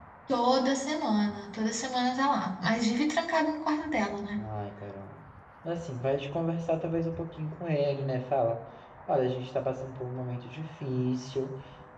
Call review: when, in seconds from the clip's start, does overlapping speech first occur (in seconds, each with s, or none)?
none